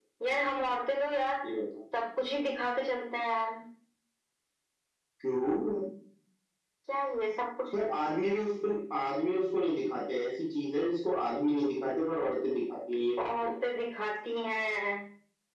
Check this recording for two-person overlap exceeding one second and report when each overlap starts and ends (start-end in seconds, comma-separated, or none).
none